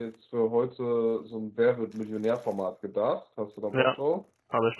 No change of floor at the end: No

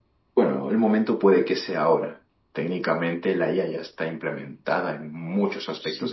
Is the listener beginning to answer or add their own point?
Yes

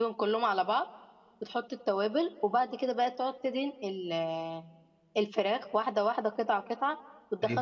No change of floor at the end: No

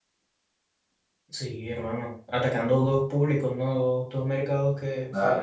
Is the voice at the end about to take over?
No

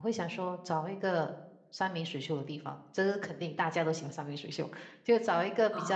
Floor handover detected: No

